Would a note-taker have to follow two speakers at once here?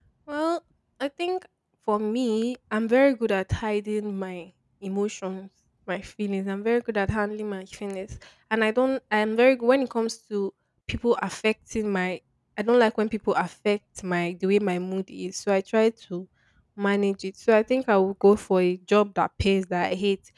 No

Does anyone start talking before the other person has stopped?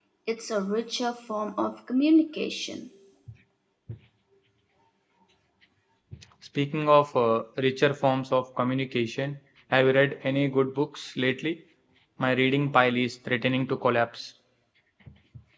No

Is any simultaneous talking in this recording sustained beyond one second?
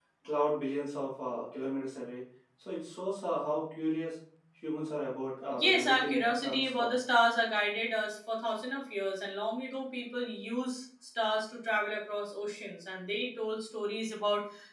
Yes, from 5.5 s

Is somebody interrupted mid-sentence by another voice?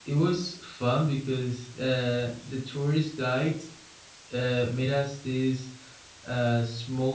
No

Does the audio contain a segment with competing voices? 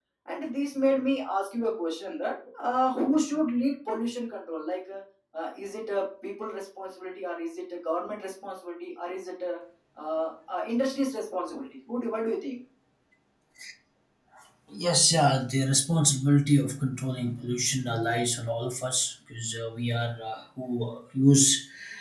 No

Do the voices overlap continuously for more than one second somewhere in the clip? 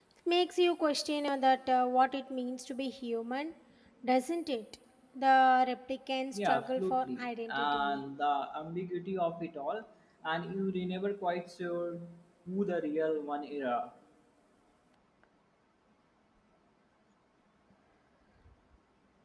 Yes, from 6.3 s

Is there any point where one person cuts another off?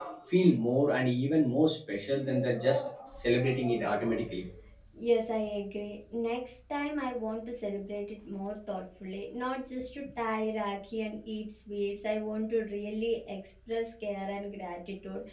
No

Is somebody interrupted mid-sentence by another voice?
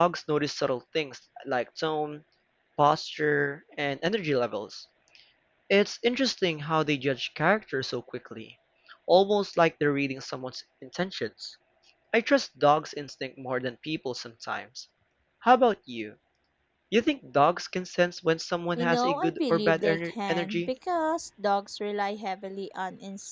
Yes, from 18.8 s

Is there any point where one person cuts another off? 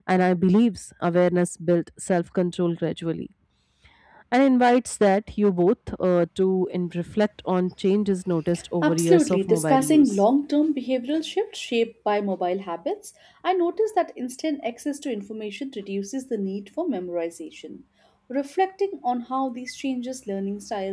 Yes, from 8.8 s

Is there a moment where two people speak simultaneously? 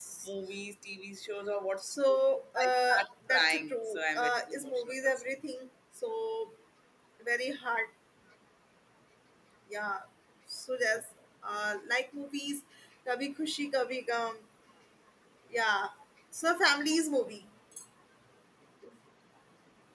Yes, from 2.6 s

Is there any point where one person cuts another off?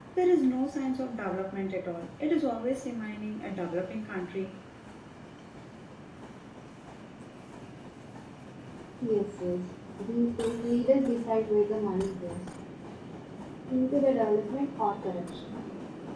No

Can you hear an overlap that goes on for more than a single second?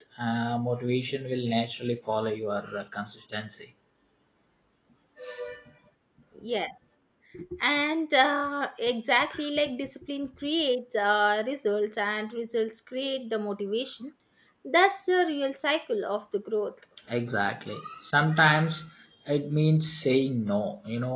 No

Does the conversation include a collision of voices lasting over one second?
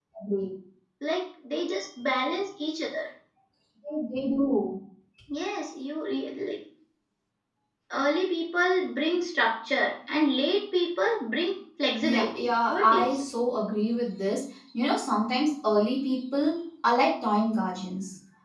Yes, from 12.0 s

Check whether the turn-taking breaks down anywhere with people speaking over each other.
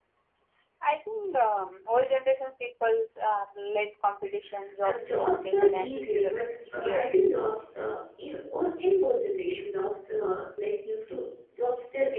Yes, from 4.8 s

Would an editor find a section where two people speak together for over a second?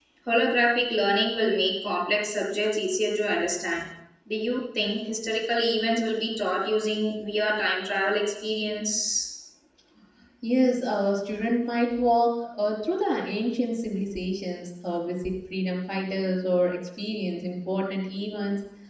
No

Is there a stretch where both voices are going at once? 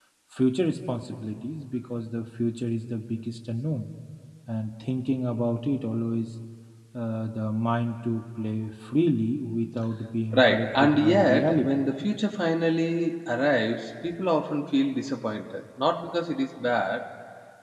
Yes, from 10.3 s

